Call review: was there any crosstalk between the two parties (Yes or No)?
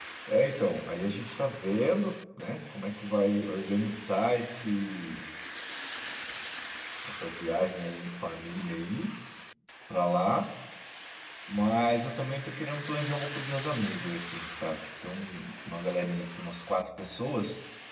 No